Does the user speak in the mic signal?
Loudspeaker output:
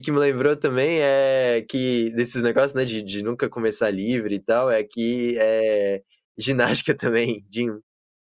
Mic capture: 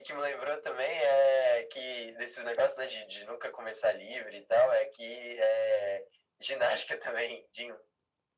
No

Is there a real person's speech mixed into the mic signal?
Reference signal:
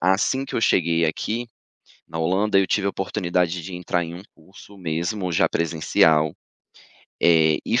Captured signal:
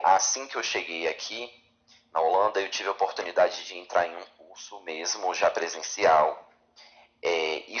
No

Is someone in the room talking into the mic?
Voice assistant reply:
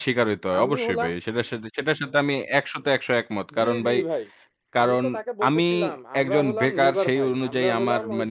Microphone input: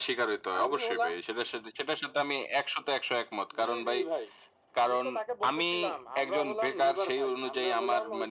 No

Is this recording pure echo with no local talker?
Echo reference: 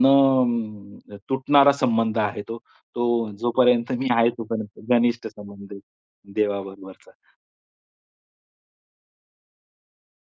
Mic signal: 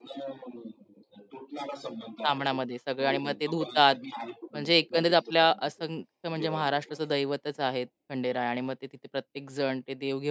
No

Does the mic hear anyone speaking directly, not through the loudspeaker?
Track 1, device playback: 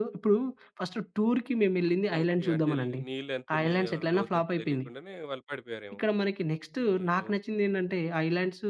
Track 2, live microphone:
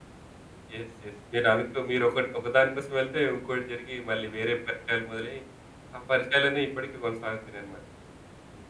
Yes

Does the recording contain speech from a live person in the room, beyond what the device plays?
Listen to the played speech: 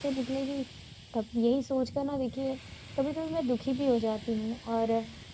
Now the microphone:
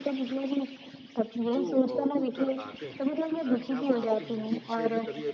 Yes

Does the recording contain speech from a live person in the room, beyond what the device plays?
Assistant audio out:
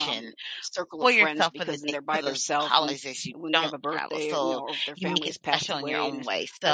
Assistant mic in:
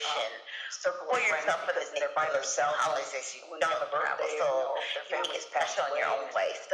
Yes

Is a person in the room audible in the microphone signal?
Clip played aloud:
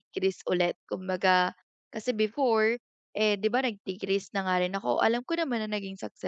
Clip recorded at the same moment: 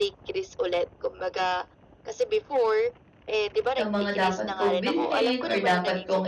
Yes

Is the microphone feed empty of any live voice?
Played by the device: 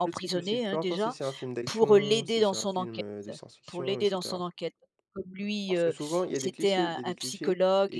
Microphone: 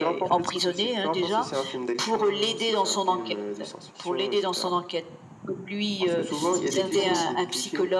No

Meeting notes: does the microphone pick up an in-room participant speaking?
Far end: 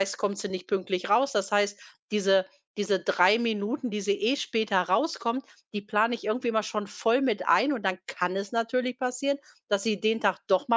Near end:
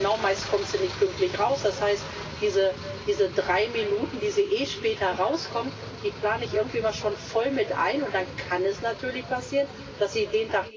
No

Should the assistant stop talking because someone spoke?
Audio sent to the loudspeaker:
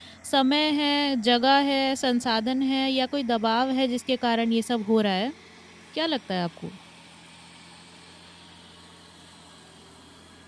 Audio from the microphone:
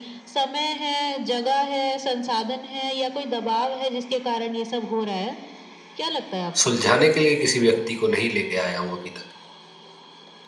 Yes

